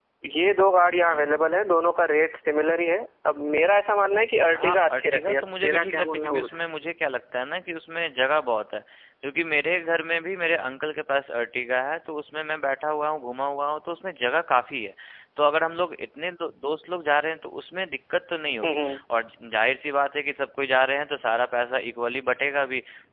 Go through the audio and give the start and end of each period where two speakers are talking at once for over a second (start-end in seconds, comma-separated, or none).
4.5-6.6